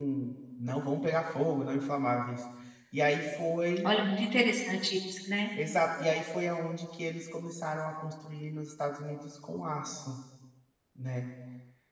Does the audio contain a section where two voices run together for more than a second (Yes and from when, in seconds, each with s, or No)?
No